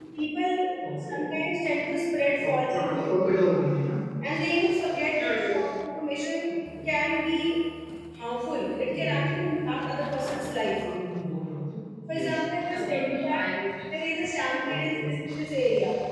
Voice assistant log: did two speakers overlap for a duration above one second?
Yes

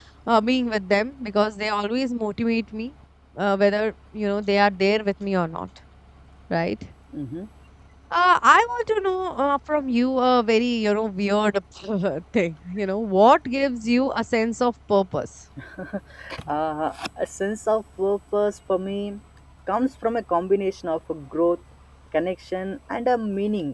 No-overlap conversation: Yes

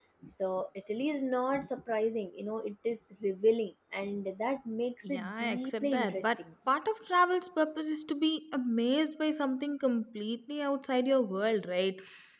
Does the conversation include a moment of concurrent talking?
Yes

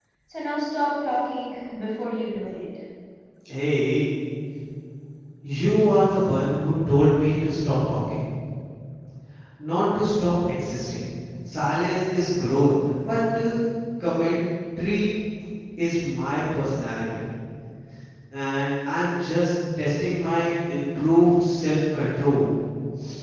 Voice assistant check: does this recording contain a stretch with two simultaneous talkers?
No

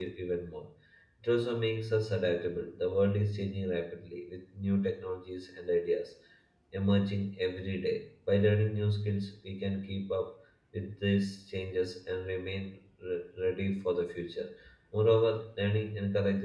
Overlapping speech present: No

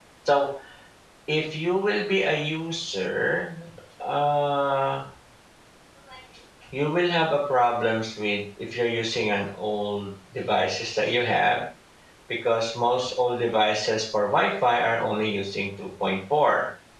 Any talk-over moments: No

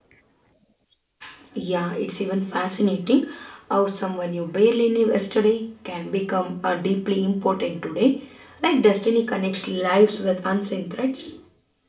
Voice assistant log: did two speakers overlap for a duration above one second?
No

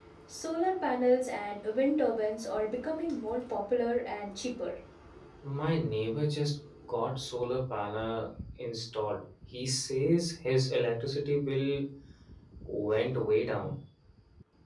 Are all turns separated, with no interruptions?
Yes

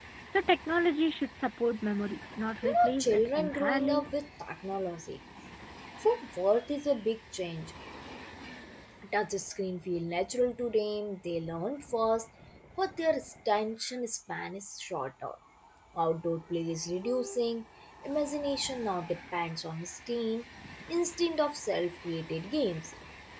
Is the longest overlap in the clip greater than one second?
Yes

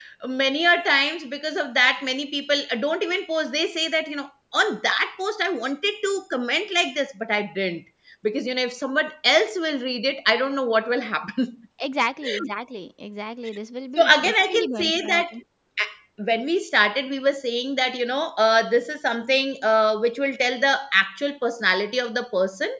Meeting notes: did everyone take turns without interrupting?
No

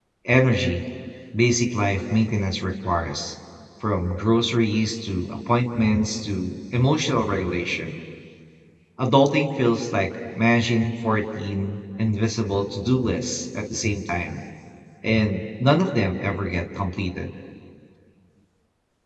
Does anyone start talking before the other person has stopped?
No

